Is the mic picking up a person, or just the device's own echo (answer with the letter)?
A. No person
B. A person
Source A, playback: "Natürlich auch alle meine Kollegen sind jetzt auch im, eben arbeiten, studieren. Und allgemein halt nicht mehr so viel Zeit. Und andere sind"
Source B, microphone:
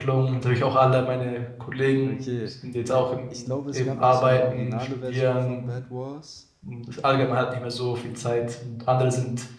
B